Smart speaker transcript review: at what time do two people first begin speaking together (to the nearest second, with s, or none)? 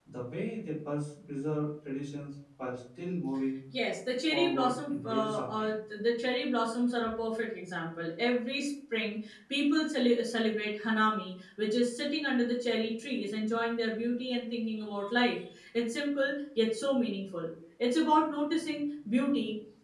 4 s